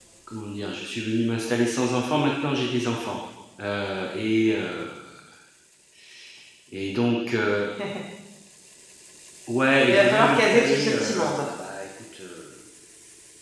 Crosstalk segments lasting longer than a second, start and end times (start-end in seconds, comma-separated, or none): 9.9-11.5